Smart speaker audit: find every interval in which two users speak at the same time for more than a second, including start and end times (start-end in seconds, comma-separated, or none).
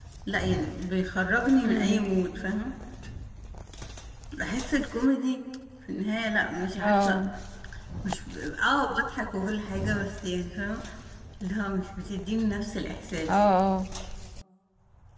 none